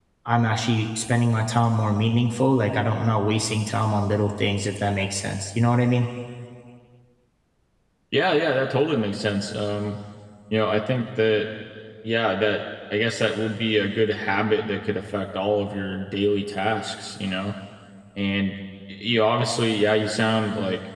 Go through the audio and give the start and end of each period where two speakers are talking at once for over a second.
none

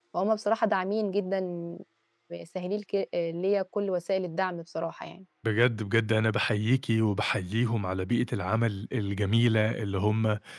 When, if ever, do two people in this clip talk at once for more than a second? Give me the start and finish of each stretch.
none

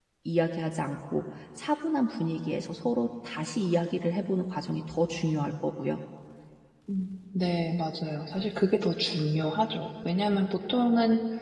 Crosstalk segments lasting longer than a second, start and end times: none

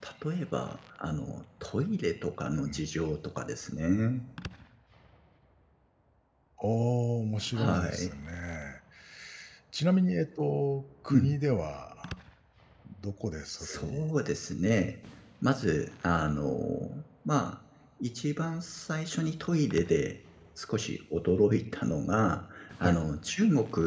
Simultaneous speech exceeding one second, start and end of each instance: none

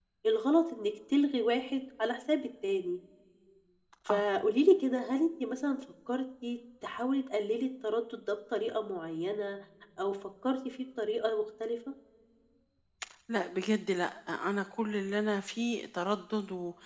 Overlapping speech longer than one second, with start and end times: none

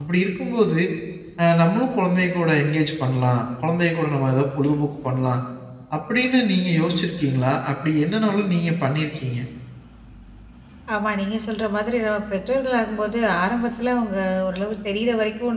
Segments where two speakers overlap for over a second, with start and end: none

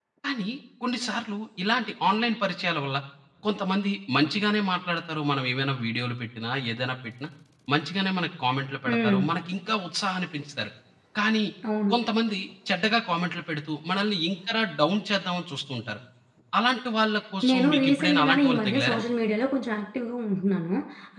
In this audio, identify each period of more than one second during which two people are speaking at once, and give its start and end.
17.5-19.0

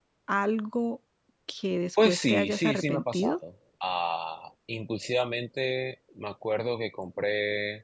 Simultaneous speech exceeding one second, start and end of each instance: 2.0-3.4

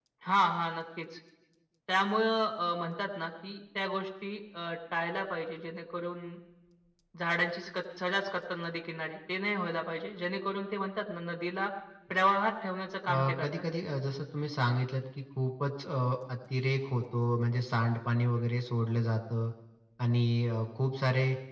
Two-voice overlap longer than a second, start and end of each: none

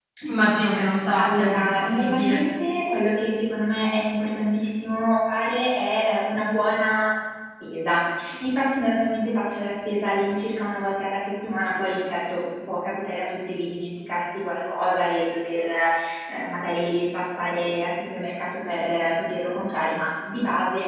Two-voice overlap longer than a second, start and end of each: 1.2-2.4

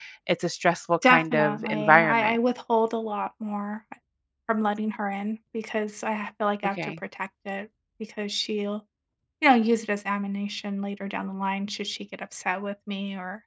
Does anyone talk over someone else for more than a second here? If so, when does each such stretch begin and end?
1.1-2.4

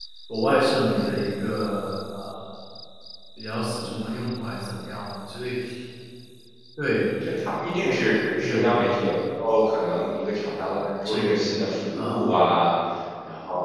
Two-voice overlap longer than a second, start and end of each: none

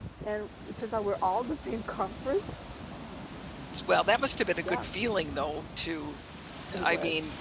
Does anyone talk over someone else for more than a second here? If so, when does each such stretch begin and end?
none

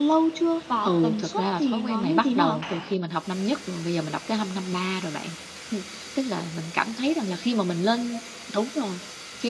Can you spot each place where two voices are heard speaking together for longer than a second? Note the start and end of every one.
0.8-2.6

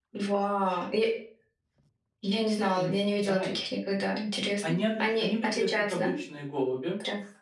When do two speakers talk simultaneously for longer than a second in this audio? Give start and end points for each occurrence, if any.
4.7-6.1

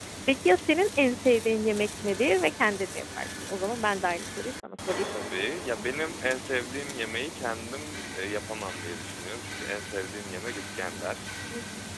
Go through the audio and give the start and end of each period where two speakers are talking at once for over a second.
none

